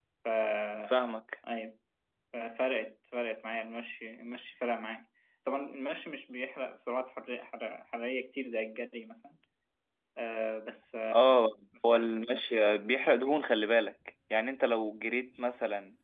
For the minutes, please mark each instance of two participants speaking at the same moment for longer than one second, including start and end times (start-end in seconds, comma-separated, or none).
none